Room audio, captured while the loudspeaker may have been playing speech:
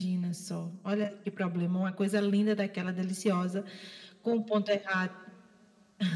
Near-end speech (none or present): none